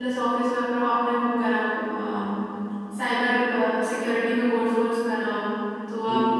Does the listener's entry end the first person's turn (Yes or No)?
No